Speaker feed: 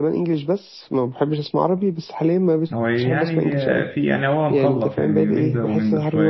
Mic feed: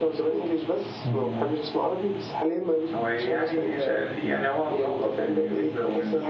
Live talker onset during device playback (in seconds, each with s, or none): 1.0 s